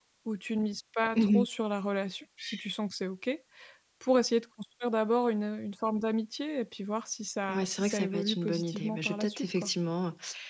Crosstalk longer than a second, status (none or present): present